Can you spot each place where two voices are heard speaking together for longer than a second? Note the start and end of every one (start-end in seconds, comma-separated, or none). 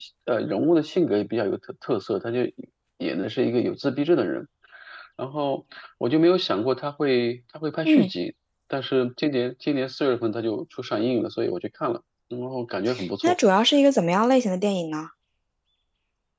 none